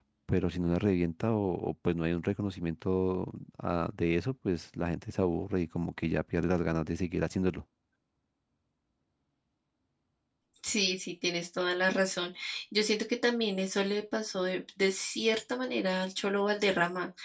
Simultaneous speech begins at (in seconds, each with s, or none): none